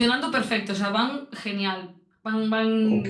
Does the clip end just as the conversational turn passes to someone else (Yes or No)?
No